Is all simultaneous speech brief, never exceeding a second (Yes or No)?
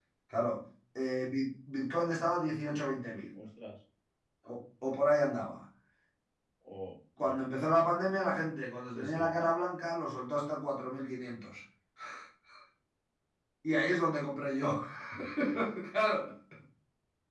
Yes